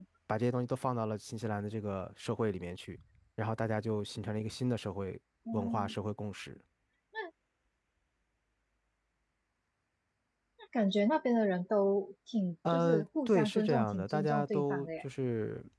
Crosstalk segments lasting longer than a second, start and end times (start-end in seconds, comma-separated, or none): 12.7-14.9